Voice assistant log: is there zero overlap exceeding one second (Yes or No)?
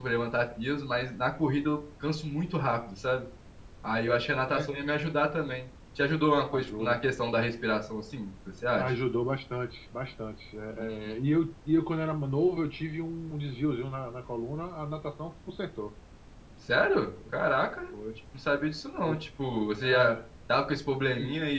Yes